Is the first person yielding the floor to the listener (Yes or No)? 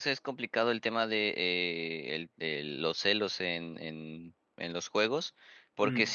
No